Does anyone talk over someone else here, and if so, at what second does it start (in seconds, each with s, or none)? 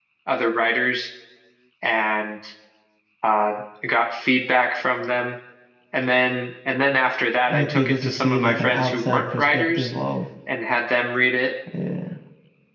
7.5 s